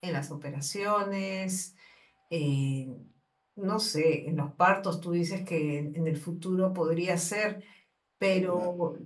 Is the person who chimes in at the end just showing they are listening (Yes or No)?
Yes